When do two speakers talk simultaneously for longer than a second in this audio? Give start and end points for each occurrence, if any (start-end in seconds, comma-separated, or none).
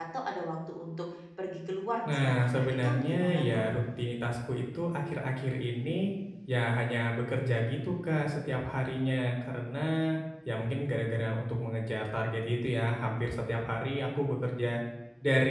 2.1-3.7